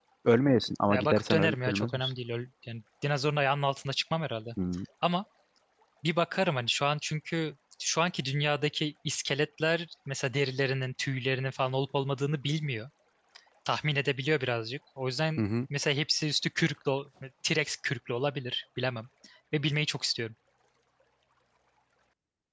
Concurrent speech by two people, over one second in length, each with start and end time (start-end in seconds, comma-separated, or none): 0.9-2.1